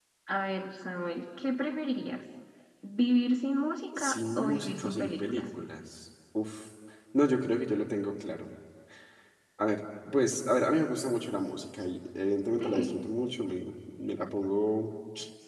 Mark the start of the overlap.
4.0 s

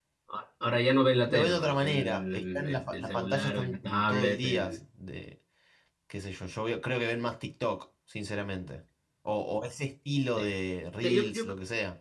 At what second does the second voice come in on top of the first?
1.3 s

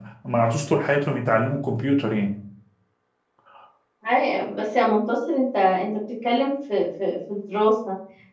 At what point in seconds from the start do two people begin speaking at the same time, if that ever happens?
none

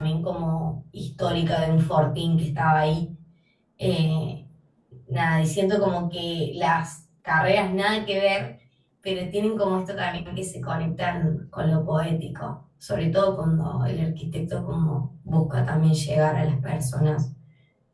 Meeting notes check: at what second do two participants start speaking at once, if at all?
none

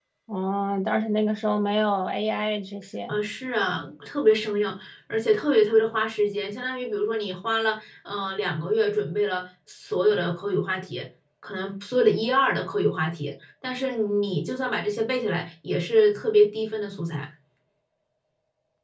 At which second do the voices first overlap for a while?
none

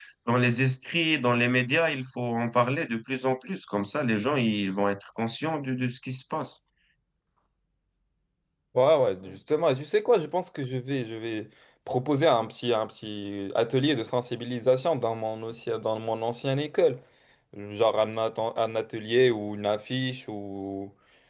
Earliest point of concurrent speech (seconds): none

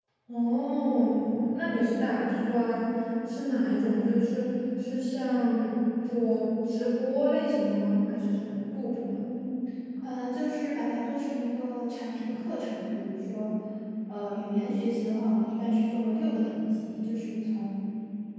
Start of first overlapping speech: none

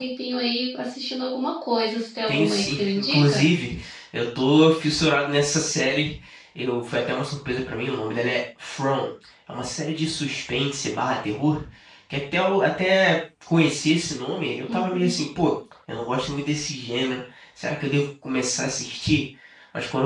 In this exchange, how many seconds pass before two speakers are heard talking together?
2.3 s

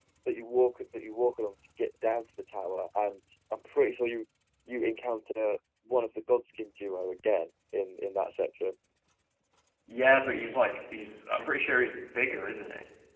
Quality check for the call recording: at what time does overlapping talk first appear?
none

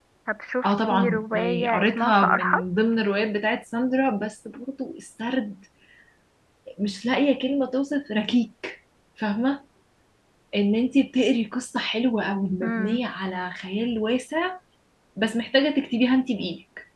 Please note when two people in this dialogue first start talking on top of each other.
0.6 s

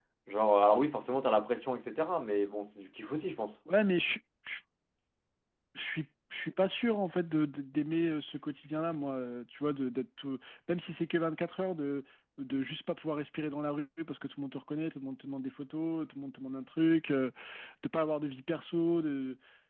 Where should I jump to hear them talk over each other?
none

